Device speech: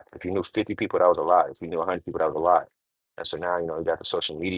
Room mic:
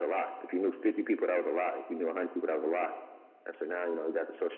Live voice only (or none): none